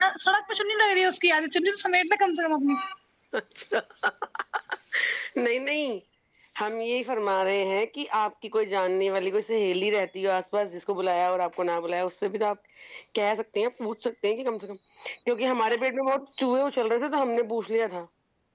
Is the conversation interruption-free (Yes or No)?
Yes